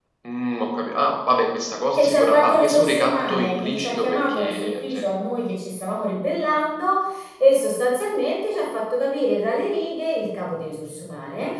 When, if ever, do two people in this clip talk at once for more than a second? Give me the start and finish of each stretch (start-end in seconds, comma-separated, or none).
1.9-5.0